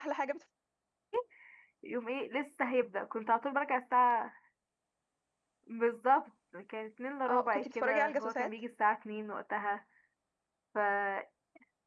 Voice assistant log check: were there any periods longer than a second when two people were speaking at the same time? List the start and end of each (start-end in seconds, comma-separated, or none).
7.3-8.5